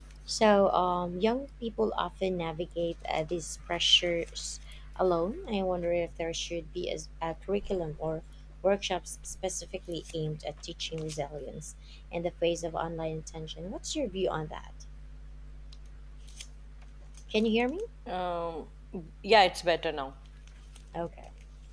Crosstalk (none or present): none